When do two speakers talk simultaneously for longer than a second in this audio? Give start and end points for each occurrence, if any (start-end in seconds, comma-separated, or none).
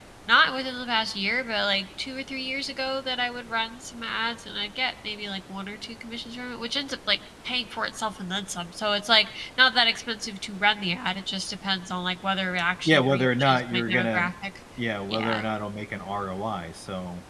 12.8-14.2